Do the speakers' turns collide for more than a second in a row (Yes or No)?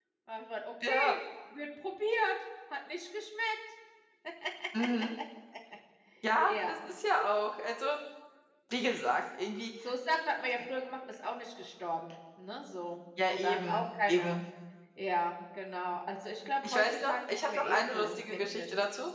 Yes